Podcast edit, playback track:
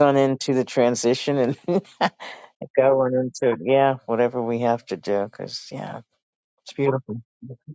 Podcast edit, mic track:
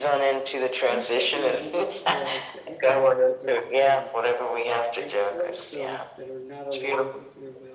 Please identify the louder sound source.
echo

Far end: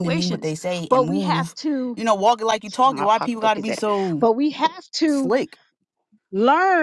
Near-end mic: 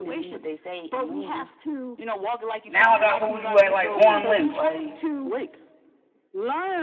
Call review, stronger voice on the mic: user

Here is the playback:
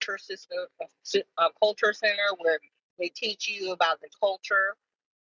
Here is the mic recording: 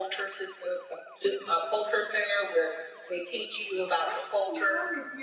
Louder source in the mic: echo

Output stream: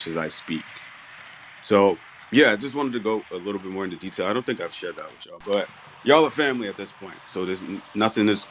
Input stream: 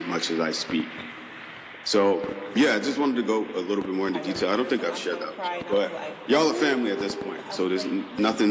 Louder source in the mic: echo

